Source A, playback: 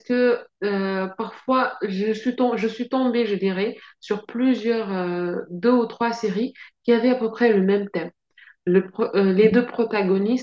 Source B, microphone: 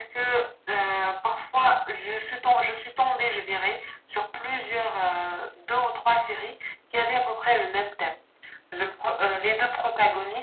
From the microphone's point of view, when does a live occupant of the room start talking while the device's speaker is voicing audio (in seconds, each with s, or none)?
none